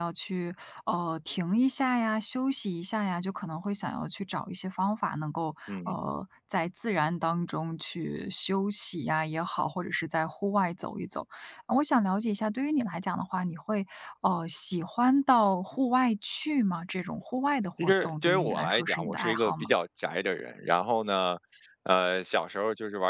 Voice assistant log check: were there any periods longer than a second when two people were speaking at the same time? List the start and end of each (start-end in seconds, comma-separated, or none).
17.8-19.7